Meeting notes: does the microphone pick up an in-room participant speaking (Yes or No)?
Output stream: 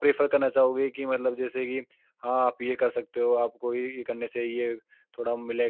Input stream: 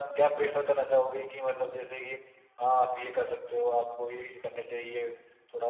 No